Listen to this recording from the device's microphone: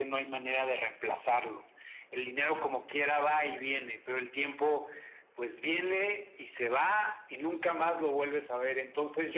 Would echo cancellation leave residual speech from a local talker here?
No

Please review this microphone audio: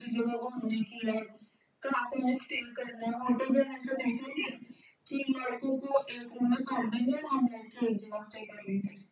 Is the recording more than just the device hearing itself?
No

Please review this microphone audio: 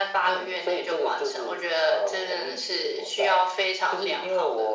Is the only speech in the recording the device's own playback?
Yes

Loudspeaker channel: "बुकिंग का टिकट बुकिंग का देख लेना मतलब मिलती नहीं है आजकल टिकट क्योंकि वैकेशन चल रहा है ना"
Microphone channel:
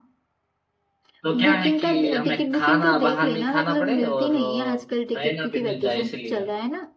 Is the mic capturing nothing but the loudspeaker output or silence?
No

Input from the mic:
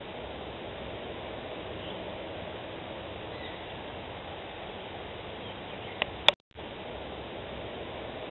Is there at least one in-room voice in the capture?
No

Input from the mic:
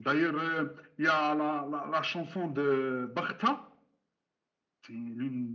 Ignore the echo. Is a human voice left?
No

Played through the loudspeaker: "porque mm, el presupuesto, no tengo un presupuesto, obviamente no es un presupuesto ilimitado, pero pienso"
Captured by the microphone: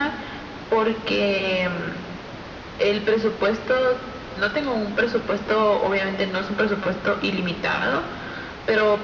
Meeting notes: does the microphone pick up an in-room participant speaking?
No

